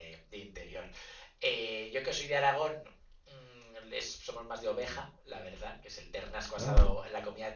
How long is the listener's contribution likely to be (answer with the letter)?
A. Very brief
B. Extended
A